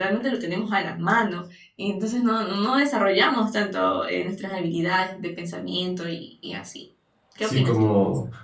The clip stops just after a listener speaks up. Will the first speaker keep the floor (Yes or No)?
No